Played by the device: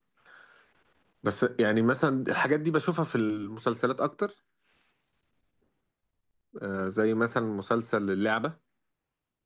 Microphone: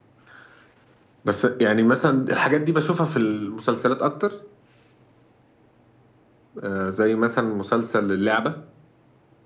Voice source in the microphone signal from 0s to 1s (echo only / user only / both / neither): neither